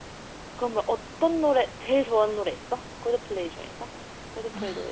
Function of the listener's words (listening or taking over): taking over